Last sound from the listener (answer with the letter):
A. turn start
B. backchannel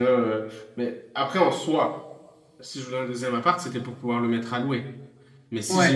B